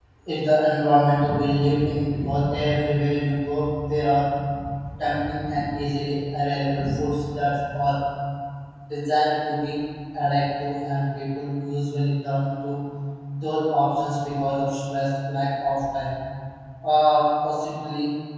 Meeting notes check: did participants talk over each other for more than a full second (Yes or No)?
No